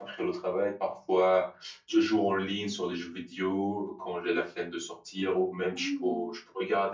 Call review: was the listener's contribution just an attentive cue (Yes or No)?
Yes